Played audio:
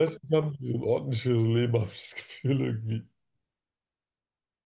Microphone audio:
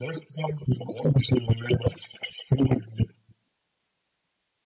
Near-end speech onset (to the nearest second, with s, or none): none